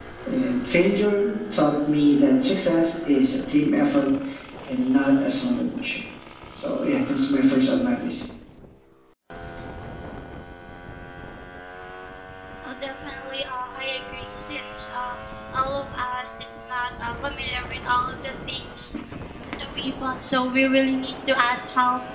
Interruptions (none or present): none